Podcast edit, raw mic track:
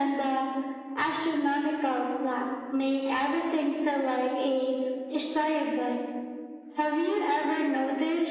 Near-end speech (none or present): none